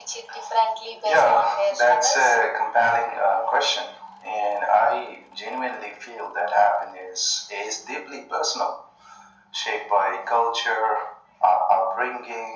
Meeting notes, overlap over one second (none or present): present